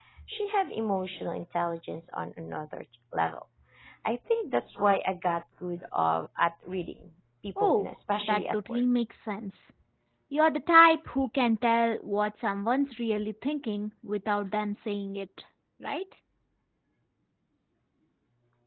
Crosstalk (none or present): present